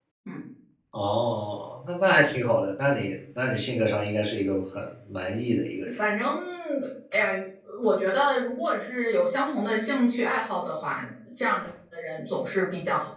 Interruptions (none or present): none